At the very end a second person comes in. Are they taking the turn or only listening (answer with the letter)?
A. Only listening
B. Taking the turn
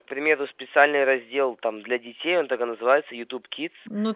B